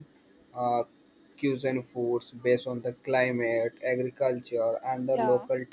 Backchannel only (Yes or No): Yes